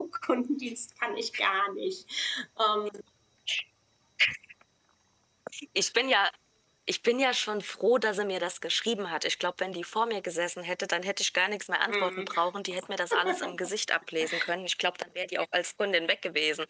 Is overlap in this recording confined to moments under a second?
Yes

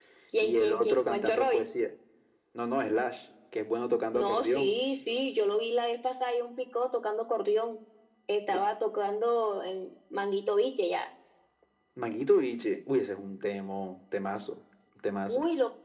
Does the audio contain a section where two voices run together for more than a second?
Yes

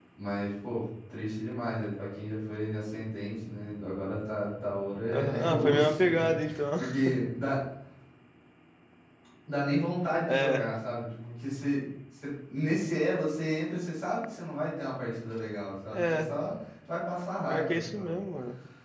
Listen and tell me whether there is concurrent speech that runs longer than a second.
Yes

